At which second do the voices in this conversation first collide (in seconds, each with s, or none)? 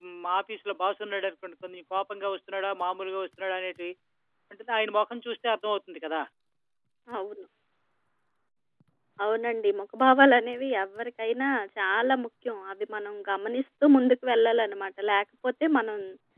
none